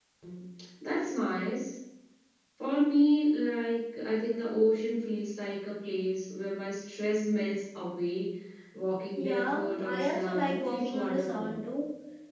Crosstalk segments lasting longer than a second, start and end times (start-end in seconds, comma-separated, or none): 9.2-11.6